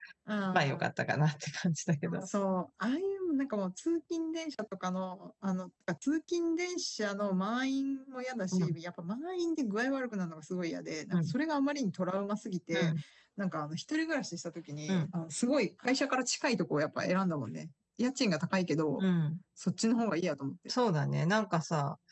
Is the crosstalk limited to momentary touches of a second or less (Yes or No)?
Yes